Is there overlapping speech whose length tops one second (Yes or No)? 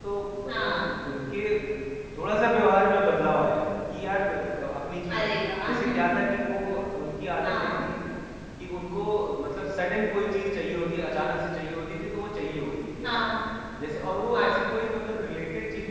No